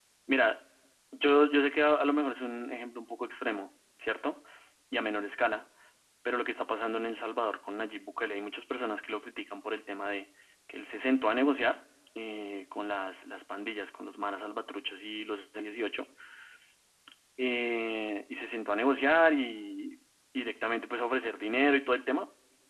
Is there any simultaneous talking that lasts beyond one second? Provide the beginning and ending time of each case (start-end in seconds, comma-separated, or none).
none